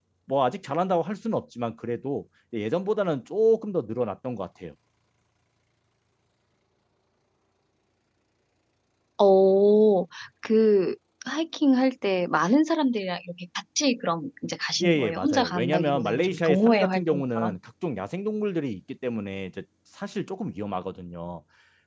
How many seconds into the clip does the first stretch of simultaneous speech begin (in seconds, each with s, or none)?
14.8 s